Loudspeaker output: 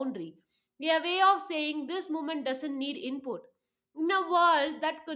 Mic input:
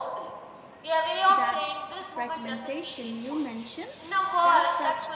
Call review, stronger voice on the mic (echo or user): echo